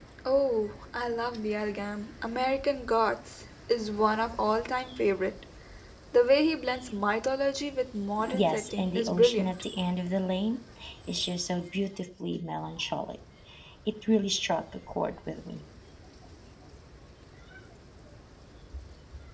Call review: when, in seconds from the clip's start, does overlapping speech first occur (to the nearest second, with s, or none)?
8 s